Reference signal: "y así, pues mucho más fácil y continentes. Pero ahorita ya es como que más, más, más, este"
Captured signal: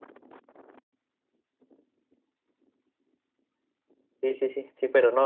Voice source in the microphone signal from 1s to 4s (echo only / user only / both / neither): neither